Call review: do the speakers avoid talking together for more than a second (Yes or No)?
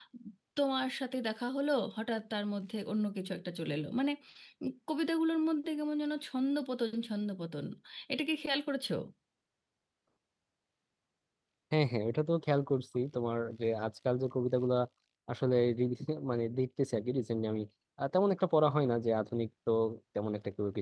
Yes